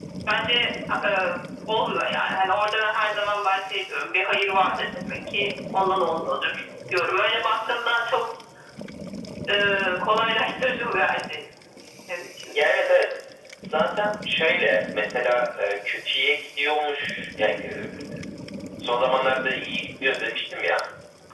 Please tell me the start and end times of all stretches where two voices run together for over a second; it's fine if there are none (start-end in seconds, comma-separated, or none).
none